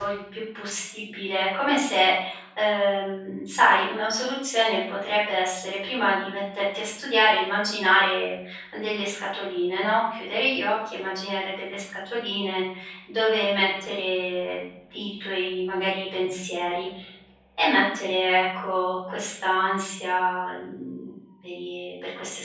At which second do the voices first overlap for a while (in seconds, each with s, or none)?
none